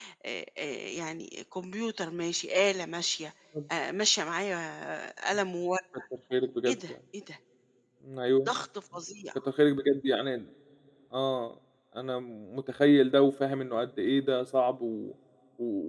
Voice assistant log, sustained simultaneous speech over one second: none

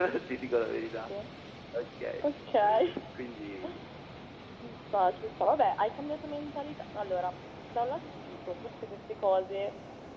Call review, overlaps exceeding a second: none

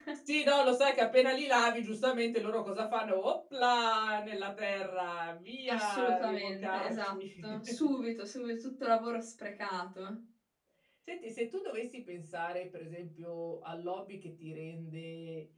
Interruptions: present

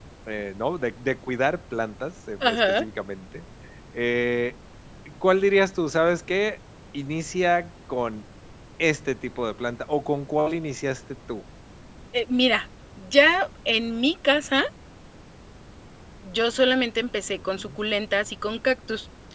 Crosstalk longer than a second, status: none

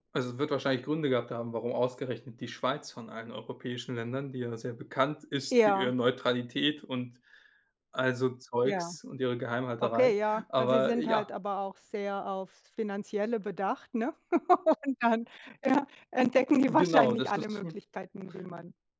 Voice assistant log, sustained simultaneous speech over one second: present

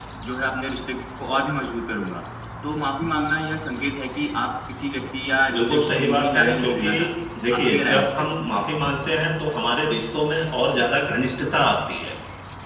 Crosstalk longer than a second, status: present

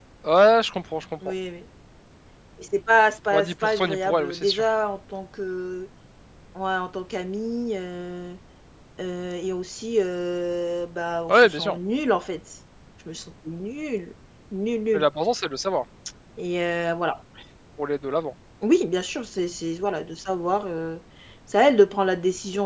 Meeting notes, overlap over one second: present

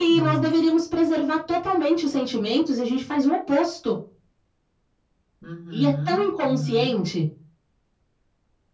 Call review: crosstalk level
present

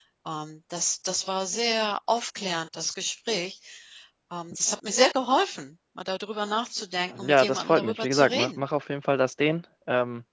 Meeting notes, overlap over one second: present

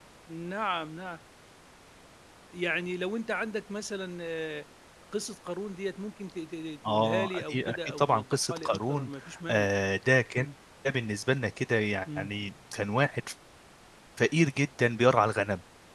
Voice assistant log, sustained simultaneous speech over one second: present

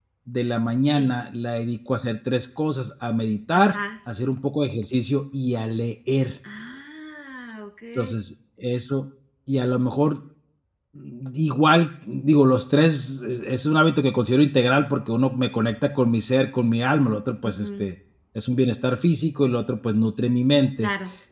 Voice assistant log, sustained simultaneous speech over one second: none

